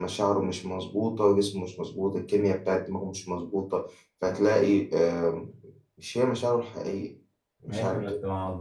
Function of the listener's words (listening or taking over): taking over